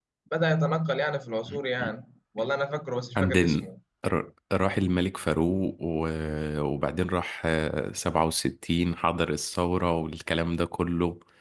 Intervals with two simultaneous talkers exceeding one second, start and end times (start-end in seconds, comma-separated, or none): none